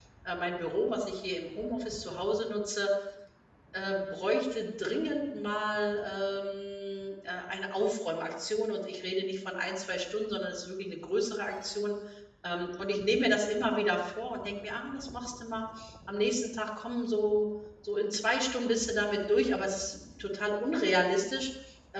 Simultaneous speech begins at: none

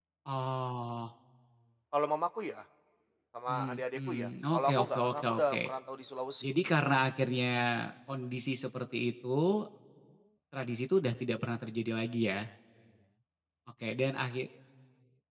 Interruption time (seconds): 3.5 s

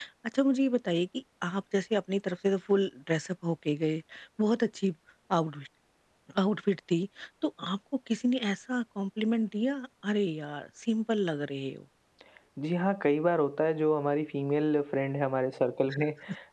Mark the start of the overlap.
none

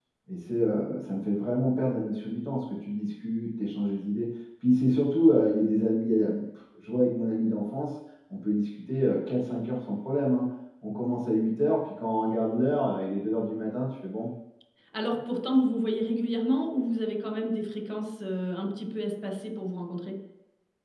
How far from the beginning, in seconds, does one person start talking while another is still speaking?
none

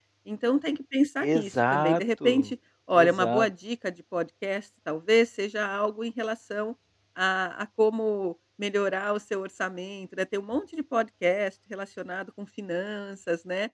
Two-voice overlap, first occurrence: 1.2 s

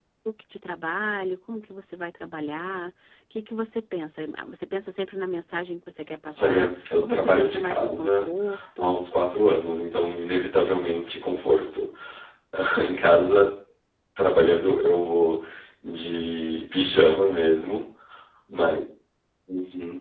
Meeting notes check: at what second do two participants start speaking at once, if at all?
6.4 s

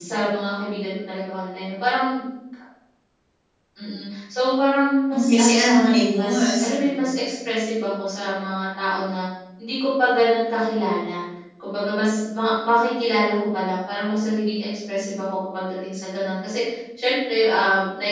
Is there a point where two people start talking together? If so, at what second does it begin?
5.1 s

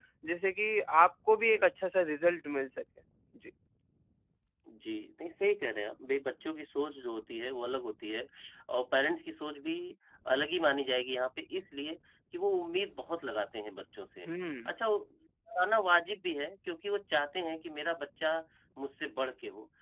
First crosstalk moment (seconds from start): none

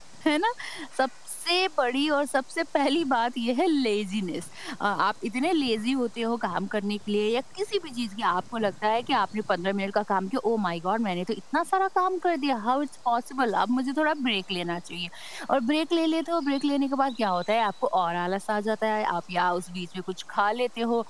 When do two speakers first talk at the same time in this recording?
none

